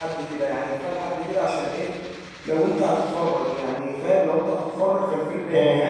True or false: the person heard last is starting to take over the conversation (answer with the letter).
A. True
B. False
A